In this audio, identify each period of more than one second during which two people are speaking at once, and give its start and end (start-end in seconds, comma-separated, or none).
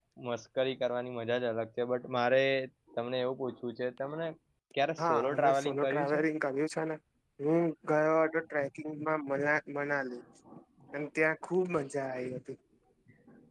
5.0-6.2